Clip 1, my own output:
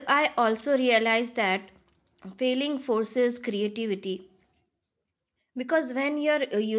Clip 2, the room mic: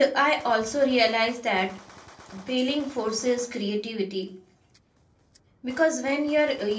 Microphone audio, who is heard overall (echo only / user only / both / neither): echo only